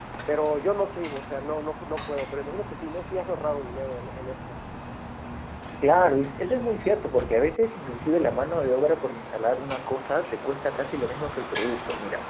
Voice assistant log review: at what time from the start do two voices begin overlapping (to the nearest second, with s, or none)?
none